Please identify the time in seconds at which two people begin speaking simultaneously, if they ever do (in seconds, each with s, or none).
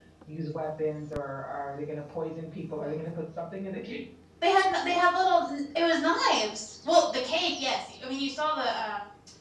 none